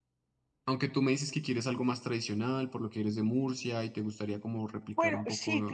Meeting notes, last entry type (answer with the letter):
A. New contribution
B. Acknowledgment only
A